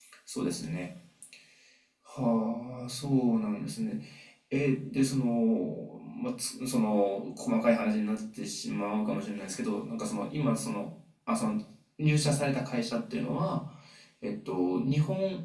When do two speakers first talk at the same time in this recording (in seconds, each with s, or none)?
none